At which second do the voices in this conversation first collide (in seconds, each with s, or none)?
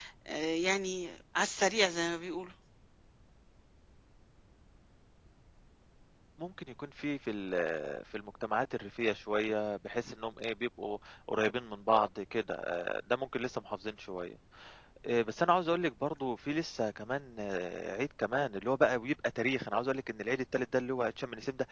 none